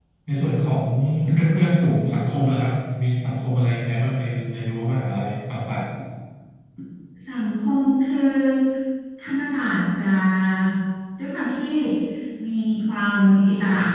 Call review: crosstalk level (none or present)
none